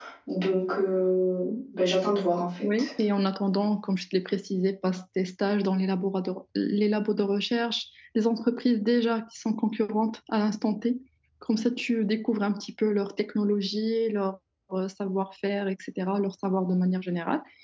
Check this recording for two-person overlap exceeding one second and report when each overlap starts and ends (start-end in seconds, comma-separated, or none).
none